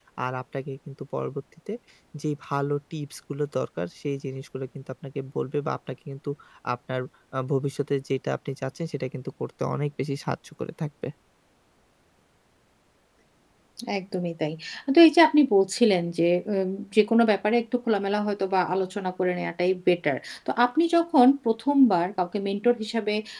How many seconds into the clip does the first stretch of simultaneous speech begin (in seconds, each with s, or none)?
none